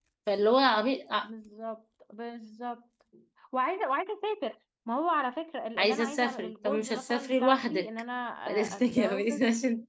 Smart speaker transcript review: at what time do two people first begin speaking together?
5.8 s

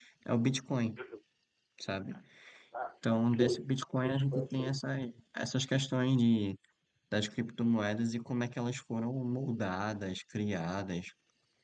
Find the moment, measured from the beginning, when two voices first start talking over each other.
3.2 s

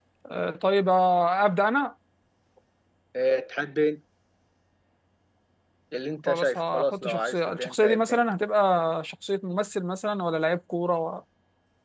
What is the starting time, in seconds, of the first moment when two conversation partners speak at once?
6.3 s

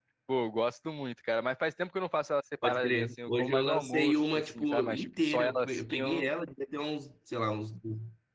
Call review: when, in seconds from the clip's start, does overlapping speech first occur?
2.6 s

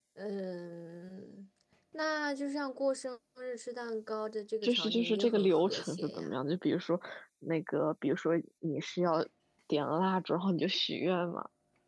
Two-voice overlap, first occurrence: 4.6 s

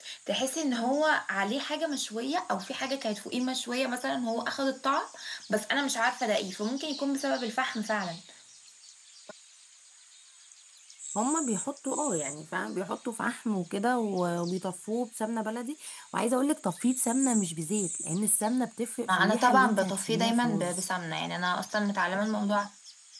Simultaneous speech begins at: 19.1 s

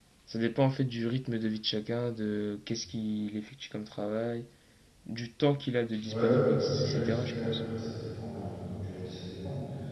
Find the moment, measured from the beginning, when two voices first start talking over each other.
6.0 s

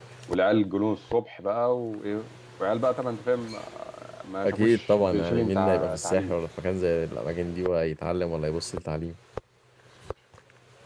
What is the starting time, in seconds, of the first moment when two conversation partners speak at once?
4.4 s

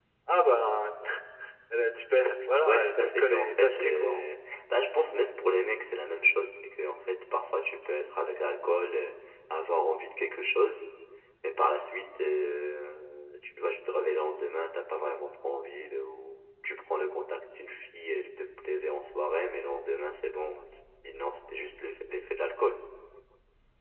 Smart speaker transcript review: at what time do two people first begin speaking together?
2.7 s

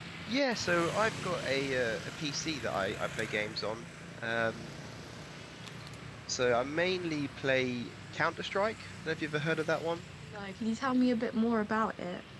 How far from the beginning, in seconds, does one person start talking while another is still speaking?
none

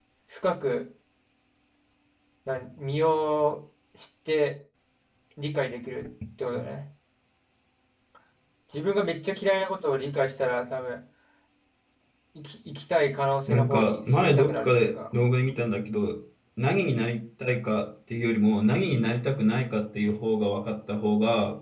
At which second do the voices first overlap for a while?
13.5 s

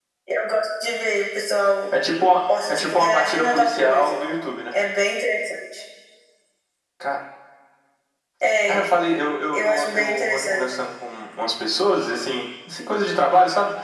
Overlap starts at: 2.7 s

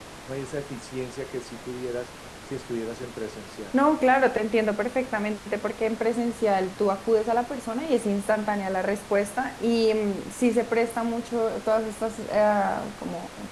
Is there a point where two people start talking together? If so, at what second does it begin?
none

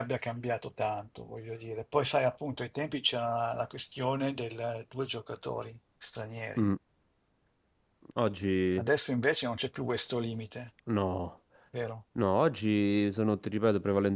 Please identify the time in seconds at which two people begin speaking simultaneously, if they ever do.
none

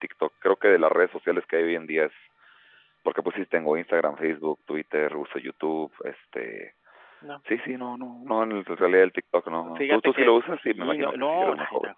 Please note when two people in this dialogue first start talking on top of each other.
9.8 s

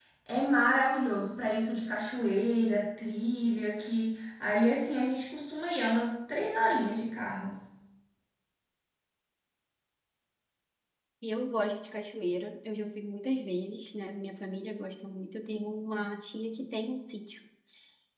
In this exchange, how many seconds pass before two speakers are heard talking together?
none

